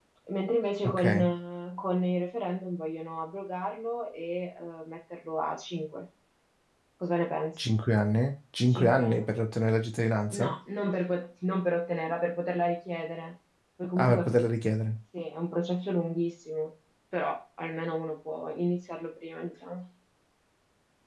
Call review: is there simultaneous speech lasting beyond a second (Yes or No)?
No